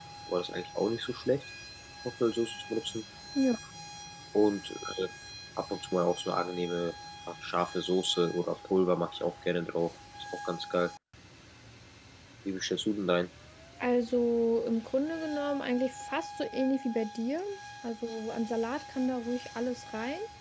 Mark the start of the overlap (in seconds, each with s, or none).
none